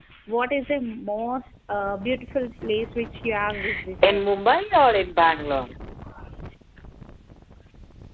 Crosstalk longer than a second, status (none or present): none